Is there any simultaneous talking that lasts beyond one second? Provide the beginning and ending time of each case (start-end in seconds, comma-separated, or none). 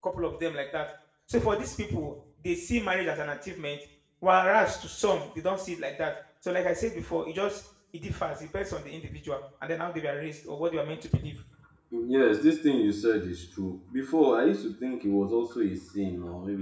none